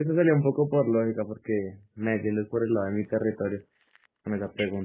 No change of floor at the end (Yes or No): No